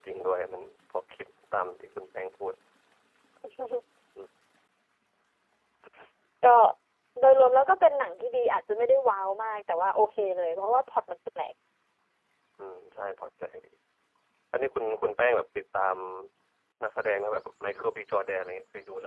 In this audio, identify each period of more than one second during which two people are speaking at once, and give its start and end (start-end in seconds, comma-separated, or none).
none